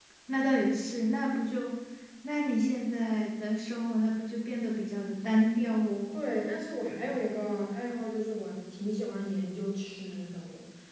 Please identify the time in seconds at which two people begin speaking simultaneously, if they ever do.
none

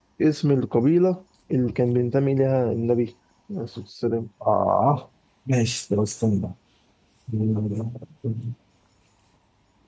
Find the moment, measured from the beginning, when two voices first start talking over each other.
none

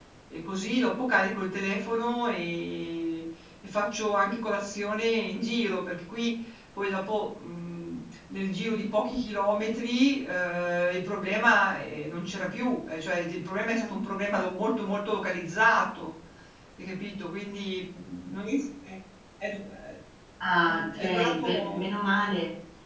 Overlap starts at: 20.6 s

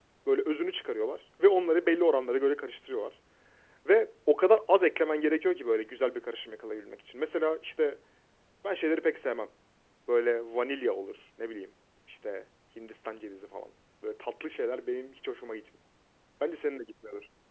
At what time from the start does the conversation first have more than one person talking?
none

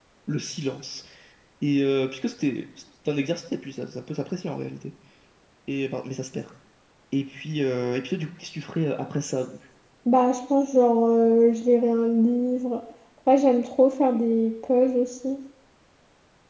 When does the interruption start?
none

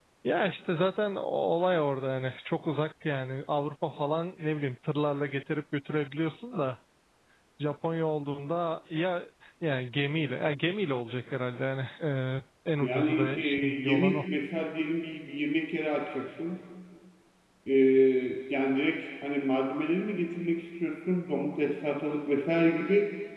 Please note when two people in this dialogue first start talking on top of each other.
12.8 s

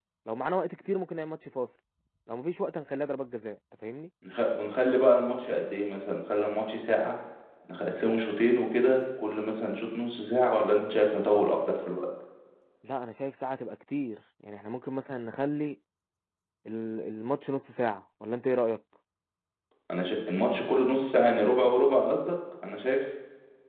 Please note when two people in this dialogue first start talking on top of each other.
none

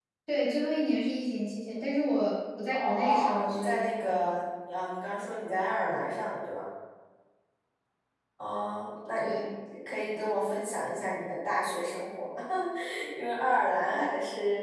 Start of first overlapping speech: 2.7 s

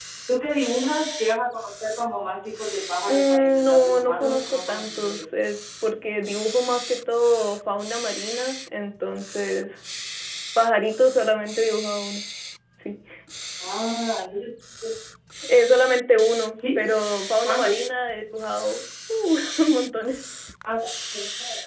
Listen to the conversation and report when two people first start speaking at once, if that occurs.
3.1 s

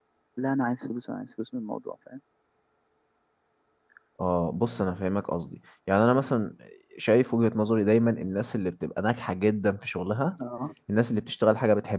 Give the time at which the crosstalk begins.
none

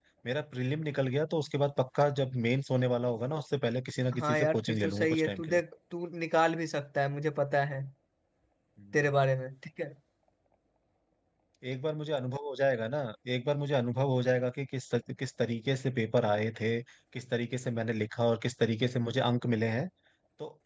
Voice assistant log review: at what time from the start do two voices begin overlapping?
4.1 s

